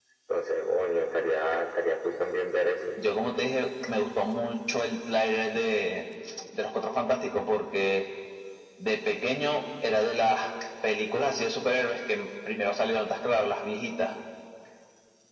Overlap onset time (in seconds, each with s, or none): none